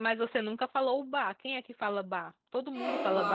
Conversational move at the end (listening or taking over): taking over